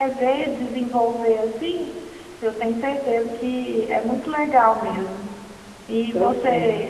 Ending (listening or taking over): listening